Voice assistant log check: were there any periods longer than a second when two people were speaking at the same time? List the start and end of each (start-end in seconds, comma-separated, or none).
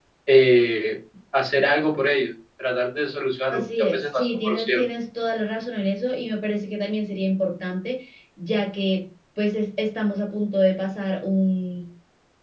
3.5-4.8